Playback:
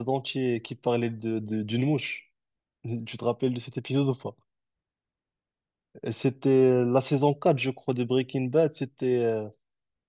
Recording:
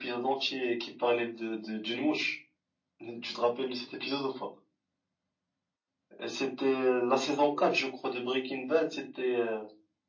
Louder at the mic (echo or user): echo